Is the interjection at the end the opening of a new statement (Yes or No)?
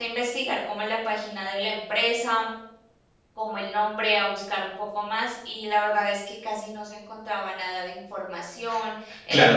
Yes